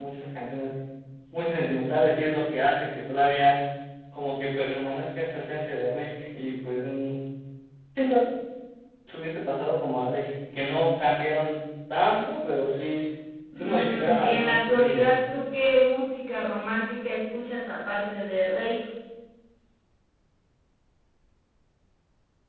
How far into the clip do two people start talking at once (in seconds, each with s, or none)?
13.6 s